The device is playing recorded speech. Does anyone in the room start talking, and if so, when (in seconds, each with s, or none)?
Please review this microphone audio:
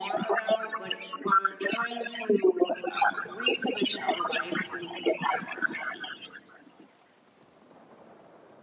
none